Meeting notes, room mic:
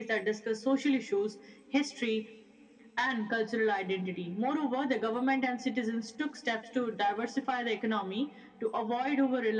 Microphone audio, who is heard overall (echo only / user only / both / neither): echo only